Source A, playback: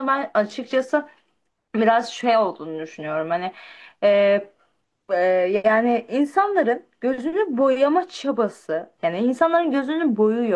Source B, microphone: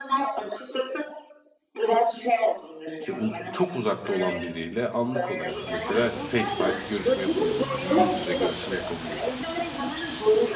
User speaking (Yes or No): Yes